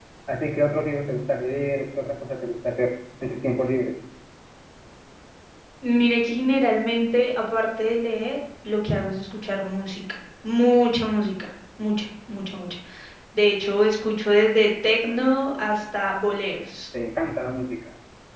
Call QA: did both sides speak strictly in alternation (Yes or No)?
Yes